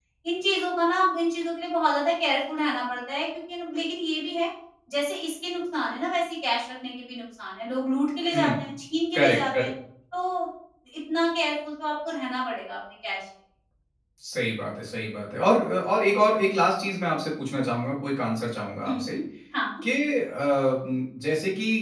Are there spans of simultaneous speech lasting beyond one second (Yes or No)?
No